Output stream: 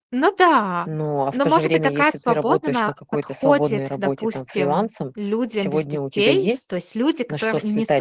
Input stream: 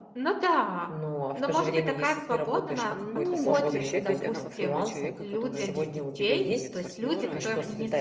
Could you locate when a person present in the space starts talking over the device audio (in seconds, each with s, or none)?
2.9 s